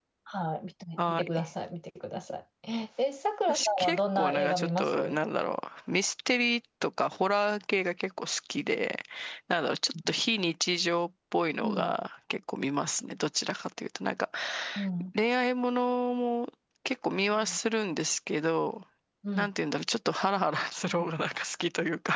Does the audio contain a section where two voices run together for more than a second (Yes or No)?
Yes